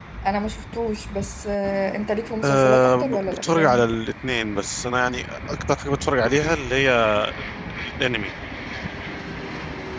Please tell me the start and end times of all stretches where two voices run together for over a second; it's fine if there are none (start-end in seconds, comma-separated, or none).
2.4-3.8